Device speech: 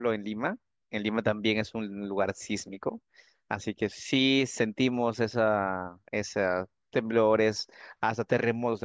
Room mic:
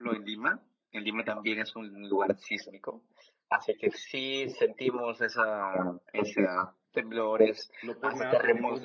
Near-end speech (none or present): present